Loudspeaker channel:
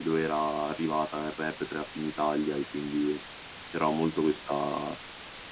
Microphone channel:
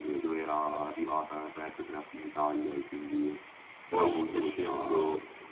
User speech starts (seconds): 3.9 s

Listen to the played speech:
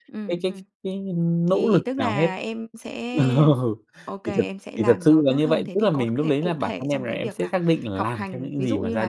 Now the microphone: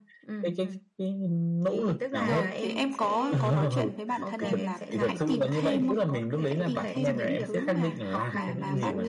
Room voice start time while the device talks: 2.2 s

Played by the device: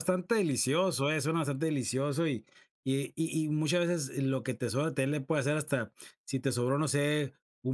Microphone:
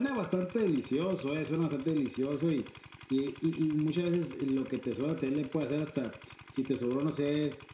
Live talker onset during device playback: none

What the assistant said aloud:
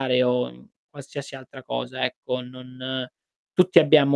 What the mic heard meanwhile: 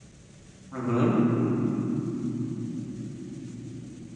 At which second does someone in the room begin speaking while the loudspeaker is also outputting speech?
0.7 s

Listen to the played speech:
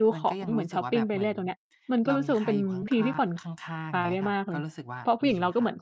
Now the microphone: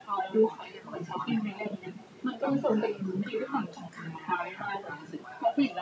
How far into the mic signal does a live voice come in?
none

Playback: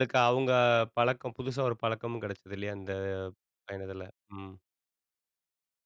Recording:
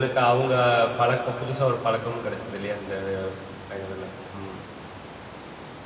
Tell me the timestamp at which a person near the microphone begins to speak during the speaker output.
none

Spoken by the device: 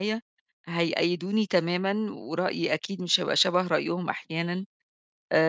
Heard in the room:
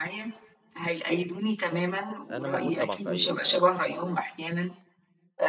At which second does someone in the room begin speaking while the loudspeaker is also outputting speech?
2.3 s

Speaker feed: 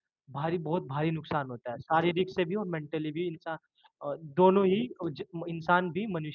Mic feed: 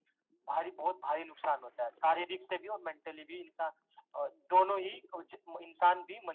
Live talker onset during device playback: none

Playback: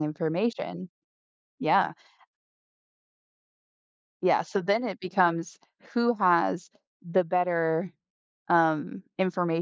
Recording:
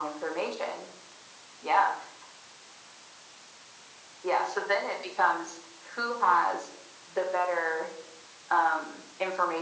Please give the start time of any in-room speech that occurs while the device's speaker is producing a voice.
none

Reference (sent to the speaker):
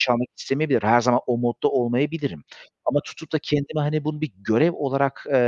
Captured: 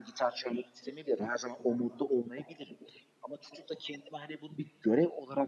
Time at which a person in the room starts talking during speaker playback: none

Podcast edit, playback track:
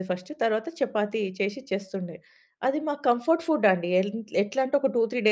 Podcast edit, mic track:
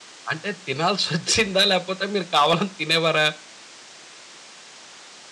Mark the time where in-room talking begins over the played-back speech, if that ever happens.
0.3 s

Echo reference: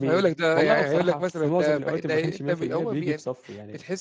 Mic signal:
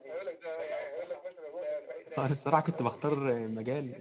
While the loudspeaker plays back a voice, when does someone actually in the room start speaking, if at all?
2.2 s

